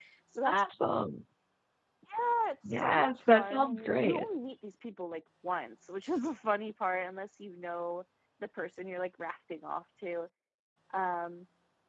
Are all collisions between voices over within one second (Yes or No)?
No